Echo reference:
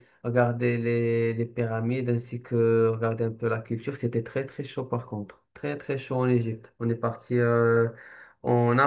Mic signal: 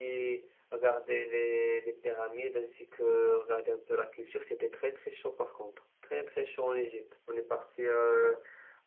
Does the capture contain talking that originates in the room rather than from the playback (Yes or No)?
No